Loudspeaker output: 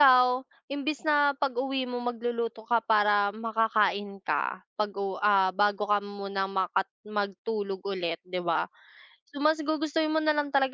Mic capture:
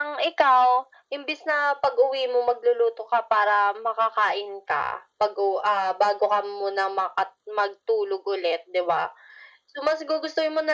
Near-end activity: none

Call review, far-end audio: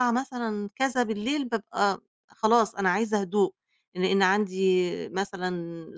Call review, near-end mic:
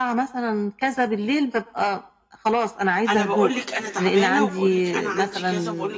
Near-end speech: present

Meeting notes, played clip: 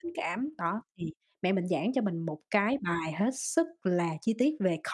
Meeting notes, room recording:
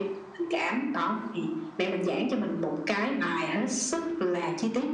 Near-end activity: none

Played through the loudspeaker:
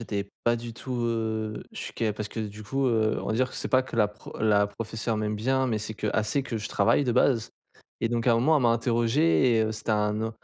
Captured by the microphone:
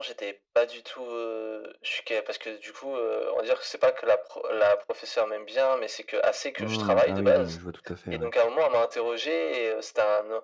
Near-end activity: present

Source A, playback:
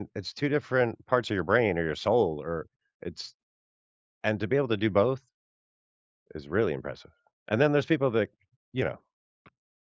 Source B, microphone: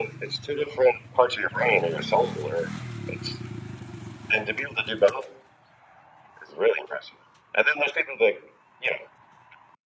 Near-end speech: none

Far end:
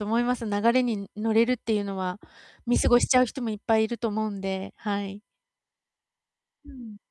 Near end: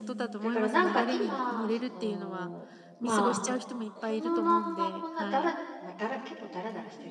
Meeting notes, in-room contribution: present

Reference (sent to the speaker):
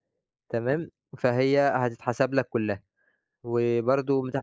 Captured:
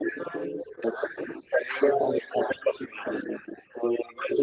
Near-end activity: none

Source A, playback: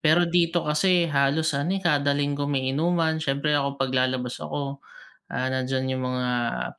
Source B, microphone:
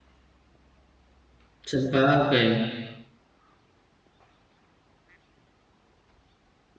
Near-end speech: present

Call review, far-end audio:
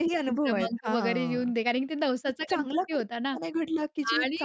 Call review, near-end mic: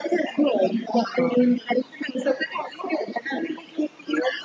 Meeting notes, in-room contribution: none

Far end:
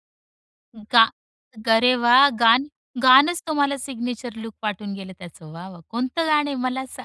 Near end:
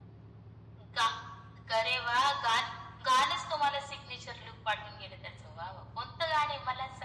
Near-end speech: none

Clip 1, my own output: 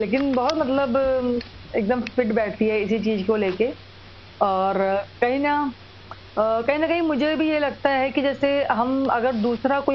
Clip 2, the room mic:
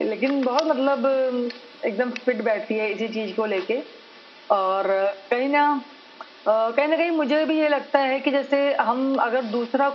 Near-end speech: none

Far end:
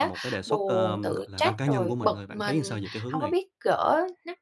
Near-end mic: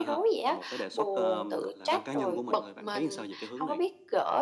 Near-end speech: none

